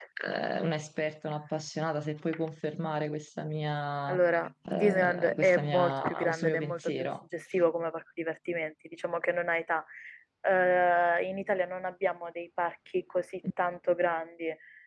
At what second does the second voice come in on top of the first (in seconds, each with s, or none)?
4.8 s